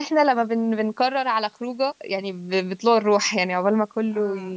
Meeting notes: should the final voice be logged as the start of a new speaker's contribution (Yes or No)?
No